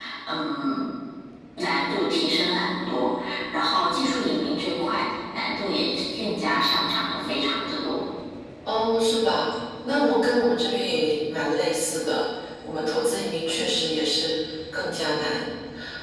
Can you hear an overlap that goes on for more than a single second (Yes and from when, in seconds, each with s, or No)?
No